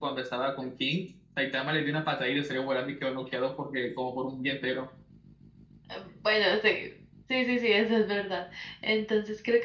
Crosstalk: none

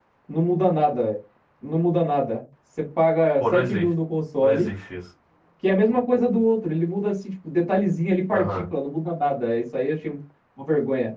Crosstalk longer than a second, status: none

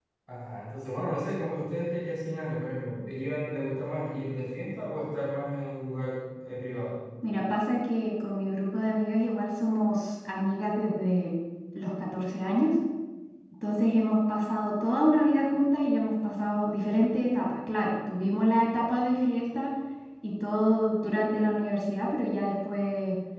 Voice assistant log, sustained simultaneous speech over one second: none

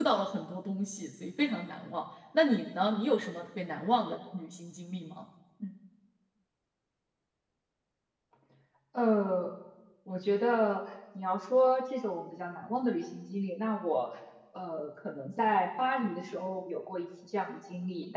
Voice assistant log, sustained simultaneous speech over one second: none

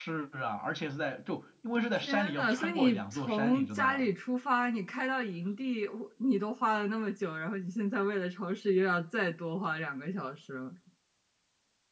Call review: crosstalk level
present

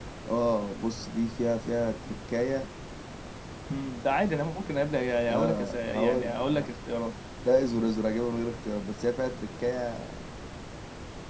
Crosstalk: present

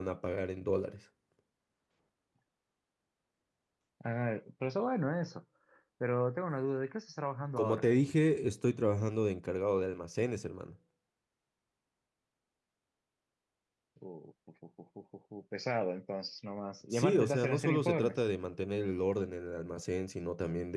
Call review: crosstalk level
present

